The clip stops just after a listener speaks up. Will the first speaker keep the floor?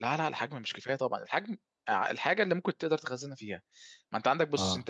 Yes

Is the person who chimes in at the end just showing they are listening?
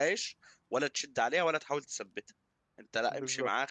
Yes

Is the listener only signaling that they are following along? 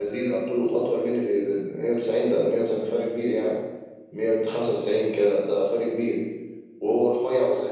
Yes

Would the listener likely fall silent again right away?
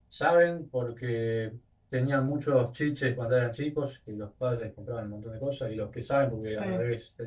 Yes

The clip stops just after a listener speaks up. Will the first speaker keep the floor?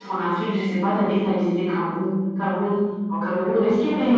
Yes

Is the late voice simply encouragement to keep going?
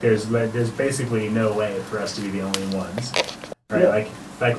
Yes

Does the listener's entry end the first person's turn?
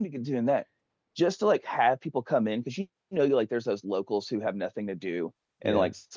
No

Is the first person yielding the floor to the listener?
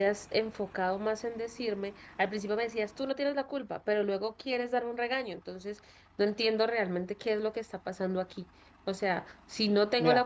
Yes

